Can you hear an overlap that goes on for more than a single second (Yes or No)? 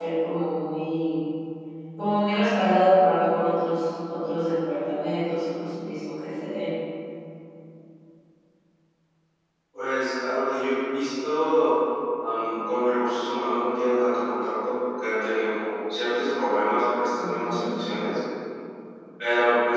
No